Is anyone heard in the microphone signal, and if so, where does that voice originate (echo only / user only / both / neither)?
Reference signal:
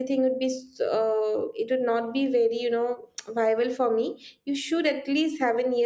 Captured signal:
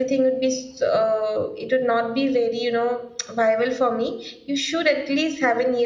echo only